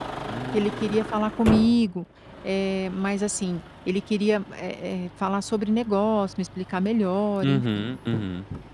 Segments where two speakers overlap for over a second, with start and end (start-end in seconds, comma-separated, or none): none